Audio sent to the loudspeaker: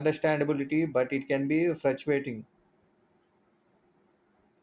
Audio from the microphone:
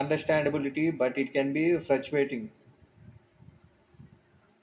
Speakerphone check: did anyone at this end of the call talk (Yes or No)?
No